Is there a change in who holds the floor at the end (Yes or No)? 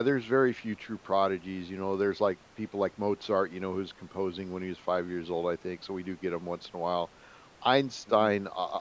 No